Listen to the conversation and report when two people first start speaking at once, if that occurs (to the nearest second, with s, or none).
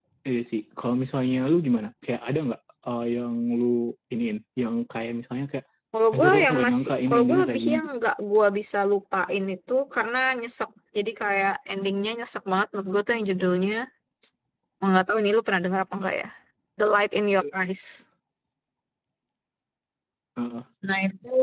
6 s